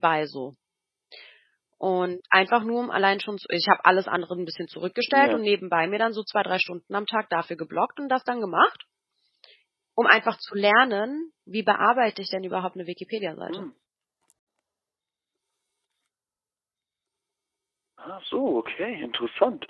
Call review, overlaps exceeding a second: none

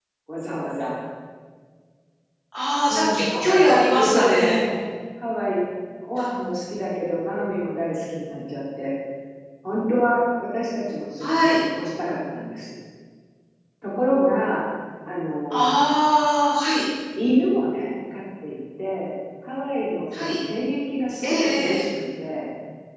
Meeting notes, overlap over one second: present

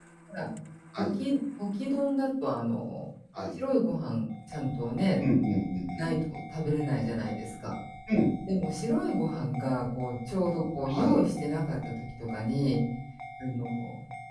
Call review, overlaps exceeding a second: none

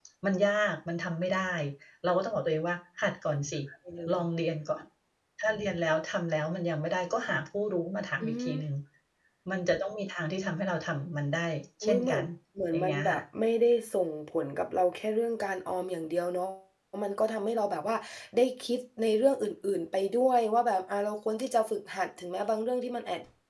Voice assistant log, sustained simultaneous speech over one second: none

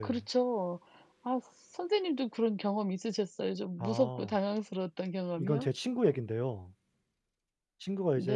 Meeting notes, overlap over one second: none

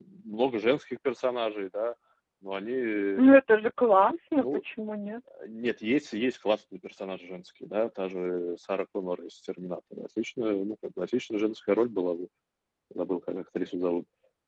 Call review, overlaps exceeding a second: none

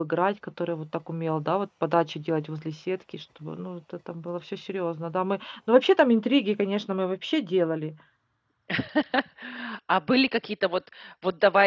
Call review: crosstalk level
none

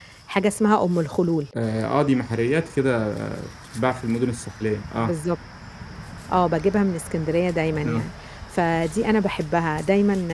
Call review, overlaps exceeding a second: none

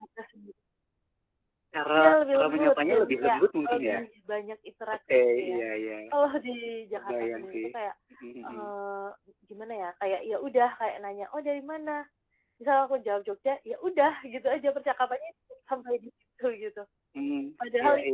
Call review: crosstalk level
present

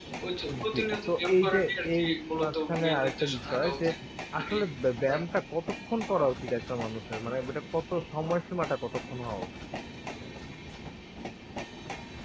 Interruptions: present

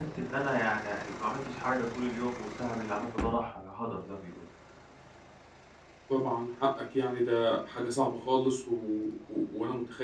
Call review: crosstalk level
none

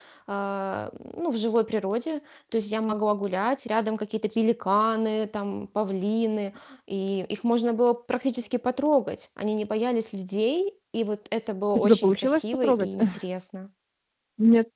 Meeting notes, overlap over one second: present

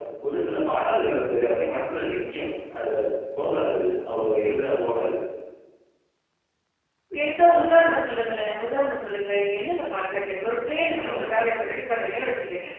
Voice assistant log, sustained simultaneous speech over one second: none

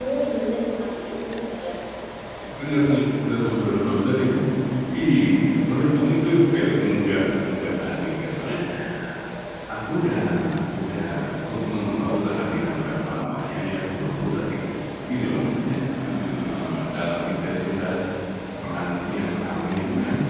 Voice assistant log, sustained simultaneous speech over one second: none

